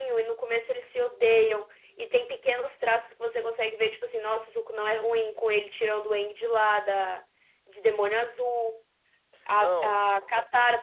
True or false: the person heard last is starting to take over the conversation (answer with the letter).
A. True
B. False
B